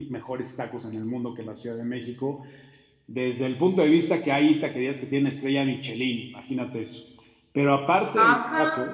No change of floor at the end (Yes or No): Yes